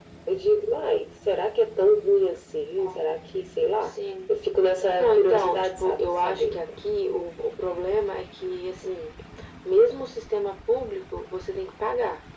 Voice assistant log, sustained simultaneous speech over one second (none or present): present